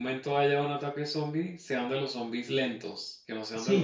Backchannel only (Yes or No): No